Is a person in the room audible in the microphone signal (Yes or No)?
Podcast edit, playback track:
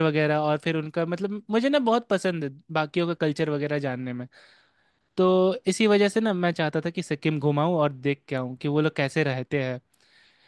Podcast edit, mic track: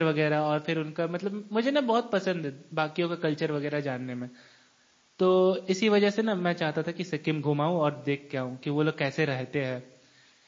No